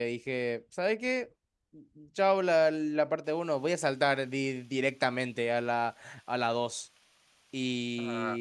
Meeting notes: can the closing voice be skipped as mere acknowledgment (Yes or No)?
Yes